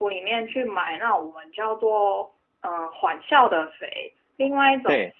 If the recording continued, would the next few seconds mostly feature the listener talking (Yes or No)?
No